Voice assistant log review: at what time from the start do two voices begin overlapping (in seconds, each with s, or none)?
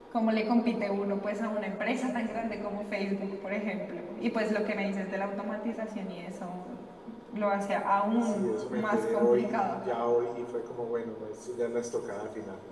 8.2 s